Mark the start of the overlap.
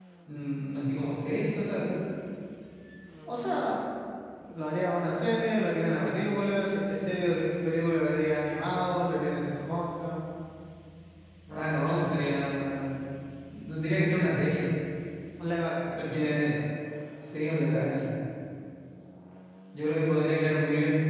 none

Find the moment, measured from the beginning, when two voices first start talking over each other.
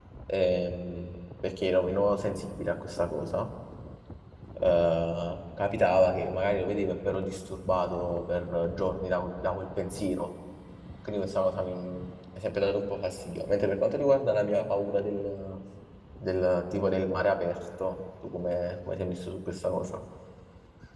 none

